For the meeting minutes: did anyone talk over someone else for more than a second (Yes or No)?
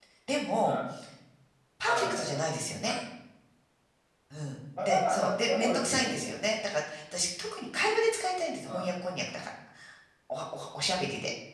Yes